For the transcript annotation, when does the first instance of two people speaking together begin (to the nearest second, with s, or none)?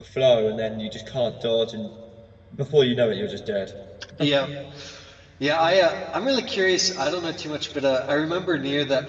none